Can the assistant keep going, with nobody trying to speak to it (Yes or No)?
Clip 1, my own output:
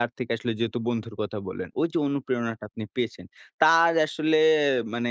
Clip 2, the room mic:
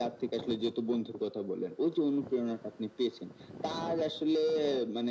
Yes